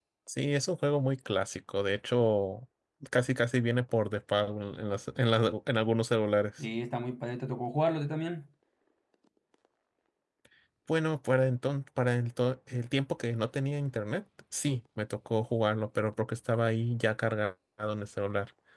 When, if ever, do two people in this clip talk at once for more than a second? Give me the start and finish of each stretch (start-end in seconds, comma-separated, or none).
none